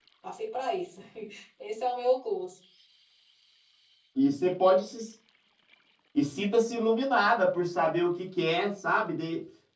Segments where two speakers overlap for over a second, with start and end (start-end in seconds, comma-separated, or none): none